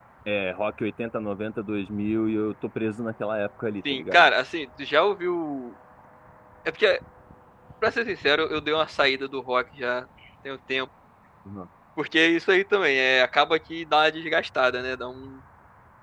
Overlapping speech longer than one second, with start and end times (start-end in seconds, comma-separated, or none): none